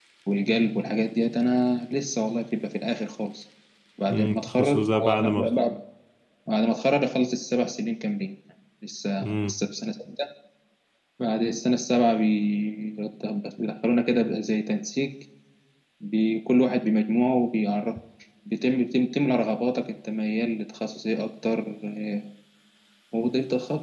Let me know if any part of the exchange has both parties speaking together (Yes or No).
Yes